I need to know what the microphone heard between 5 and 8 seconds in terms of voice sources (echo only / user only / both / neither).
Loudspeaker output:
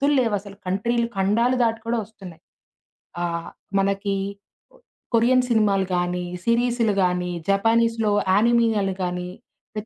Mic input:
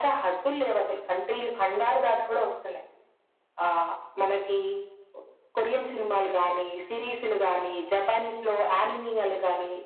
echo only